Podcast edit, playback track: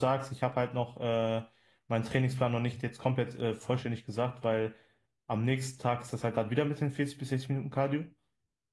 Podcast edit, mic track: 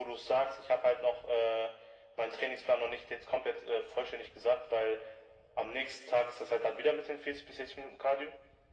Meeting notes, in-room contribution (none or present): none